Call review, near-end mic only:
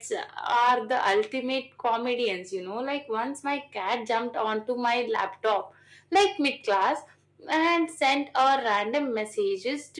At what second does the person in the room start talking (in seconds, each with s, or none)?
none